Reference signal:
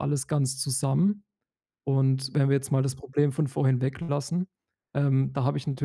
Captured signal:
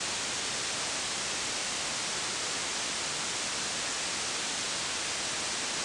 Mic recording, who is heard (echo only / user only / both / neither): neither